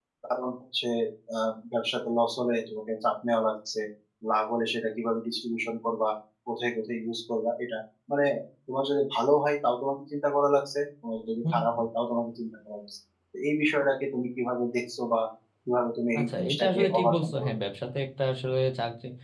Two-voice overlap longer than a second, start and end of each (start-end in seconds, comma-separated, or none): 16.2-17.6